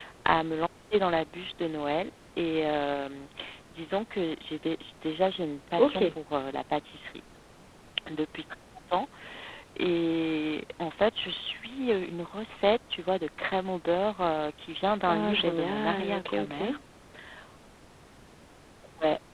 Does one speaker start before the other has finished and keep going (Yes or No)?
Yes